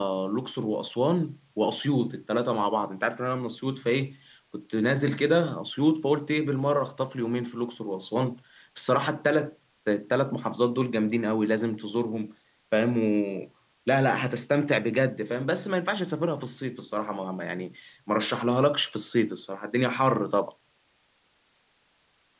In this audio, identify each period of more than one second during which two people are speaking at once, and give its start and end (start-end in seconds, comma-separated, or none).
none